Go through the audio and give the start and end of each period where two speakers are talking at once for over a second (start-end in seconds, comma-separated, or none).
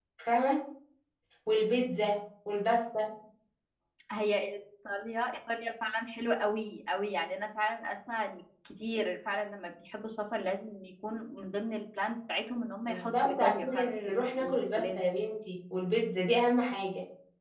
12.9-15.1